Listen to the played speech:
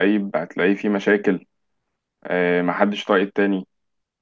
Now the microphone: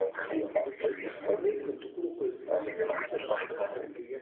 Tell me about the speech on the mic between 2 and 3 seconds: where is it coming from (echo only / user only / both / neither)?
both